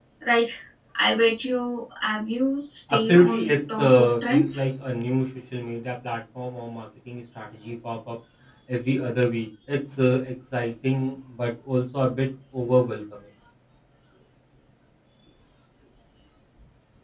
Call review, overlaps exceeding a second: present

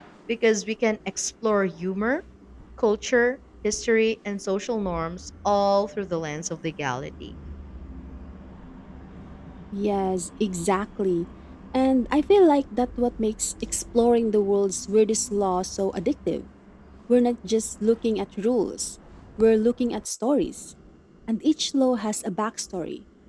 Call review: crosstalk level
none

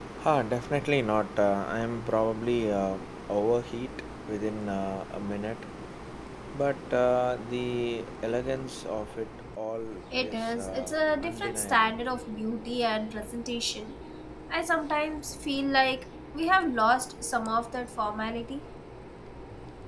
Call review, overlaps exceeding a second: present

